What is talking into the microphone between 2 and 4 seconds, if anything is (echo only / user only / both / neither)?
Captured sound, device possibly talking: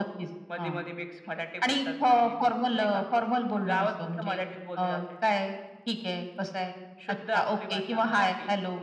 echo only